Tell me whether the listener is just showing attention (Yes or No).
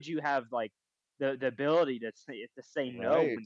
Yes